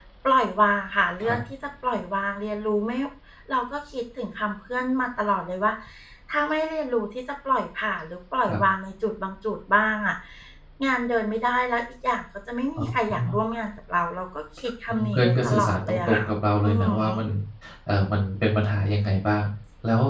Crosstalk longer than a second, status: present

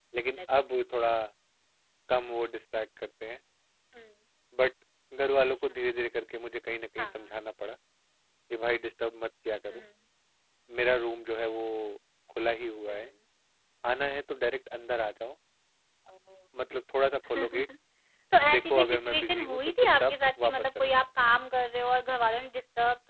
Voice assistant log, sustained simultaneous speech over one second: present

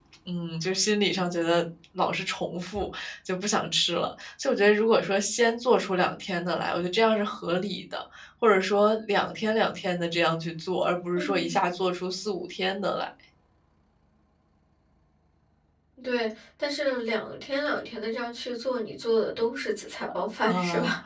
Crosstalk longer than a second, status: none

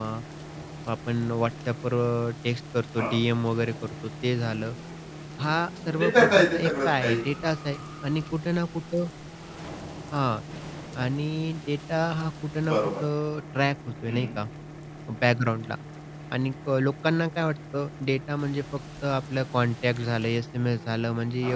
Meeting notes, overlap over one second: present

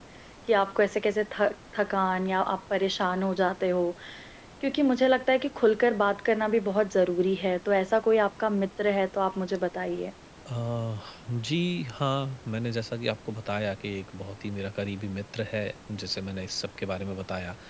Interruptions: none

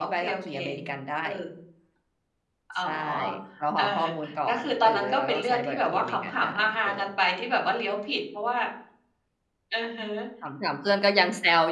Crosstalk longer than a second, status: present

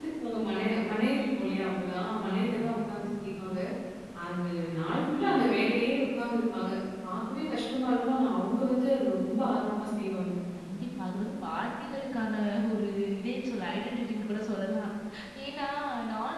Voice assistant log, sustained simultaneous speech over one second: none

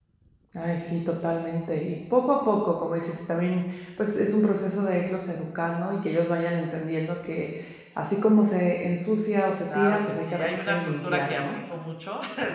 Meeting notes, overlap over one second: present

